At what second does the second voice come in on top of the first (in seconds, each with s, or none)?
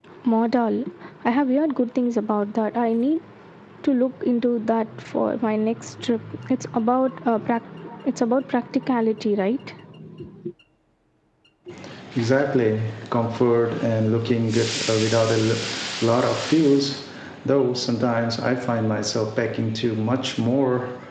none